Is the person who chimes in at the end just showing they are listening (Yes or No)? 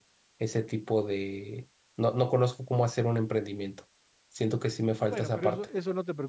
No